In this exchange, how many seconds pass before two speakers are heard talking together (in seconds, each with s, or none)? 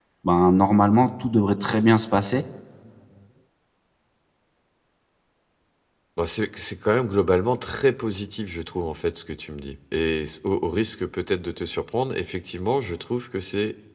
none